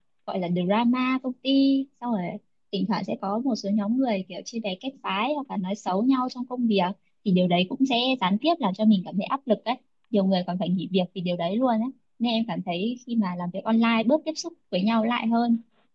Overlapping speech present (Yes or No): No